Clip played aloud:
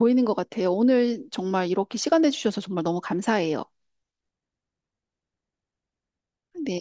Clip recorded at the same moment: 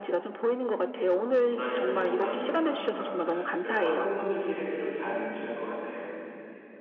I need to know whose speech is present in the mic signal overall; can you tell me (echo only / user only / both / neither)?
both